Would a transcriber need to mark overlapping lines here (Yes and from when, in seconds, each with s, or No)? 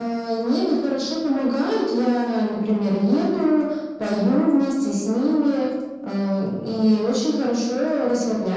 No